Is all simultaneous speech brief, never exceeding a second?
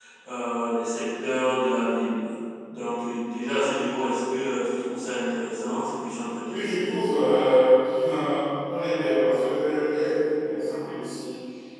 Yes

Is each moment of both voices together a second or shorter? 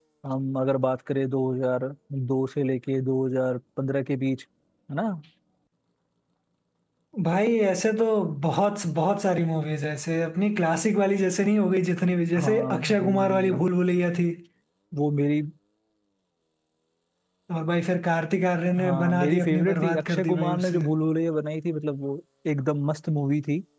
No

